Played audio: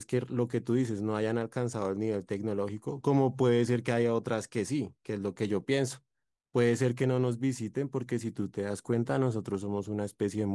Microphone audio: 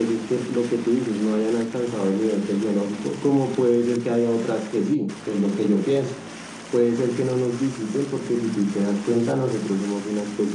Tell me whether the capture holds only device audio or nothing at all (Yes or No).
Yes